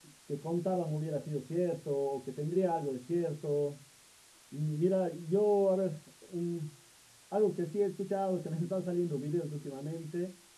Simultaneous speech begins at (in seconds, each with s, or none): none